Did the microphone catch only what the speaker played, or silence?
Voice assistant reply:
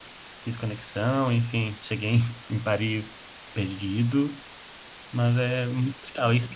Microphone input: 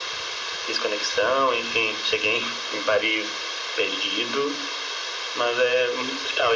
Yes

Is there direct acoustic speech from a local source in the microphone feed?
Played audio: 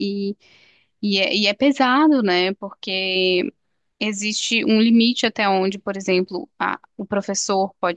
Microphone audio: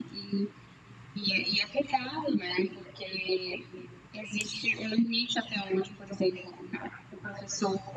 No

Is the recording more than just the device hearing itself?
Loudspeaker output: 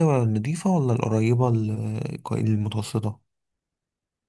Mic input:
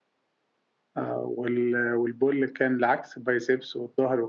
Yes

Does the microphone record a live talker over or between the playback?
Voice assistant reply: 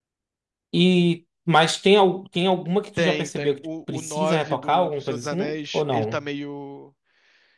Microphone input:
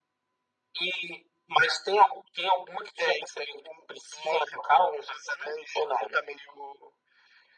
No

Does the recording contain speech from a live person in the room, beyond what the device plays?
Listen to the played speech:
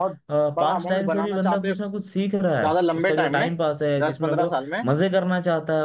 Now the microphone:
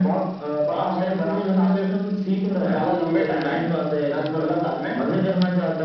No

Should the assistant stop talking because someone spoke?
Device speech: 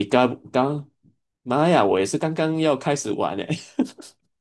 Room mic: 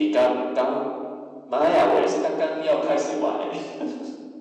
No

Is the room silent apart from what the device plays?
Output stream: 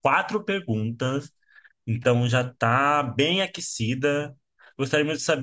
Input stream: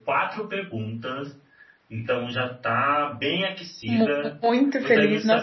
No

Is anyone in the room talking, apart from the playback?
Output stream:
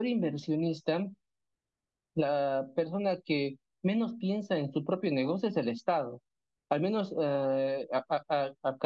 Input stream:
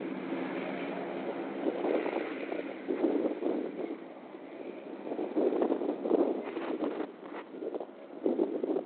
No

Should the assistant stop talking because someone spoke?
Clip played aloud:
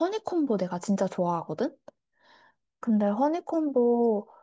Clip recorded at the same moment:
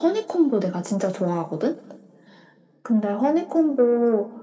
No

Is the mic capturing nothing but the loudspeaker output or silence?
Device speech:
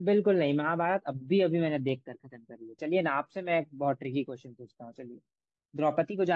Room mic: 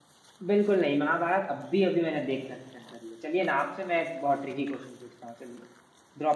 Yes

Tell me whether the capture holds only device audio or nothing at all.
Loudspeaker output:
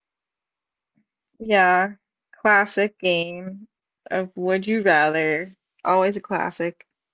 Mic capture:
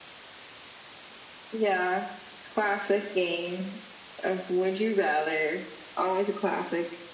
Yes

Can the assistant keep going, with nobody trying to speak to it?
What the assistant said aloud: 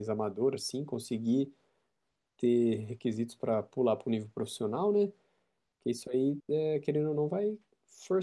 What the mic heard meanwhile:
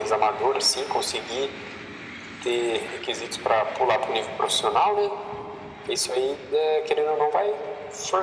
Yes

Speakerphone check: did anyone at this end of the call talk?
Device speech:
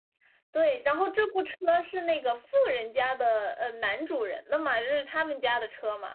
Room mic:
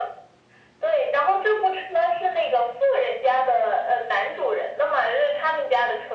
No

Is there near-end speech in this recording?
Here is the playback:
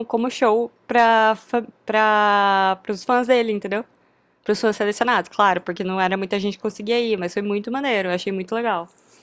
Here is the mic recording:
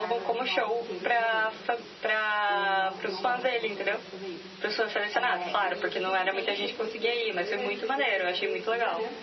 Yes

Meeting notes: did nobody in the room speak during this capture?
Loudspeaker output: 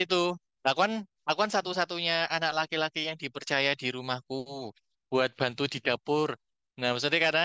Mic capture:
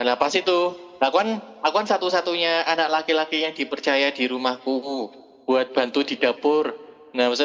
Yes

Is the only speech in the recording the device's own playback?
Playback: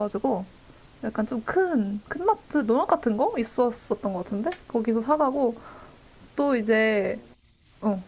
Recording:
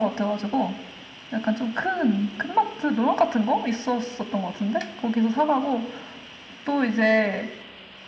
Yes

